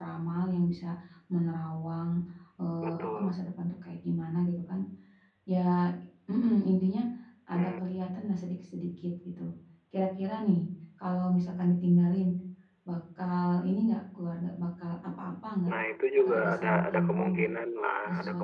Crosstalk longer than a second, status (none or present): present